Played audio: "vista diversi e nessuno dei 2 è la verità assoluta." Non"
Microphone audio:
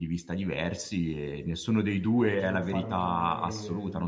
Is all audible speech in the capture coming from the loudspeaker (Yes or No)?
No